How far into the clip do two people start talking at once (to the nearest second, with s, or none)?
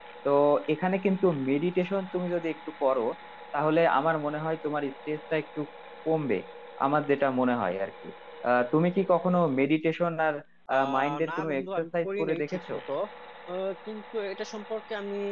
11 s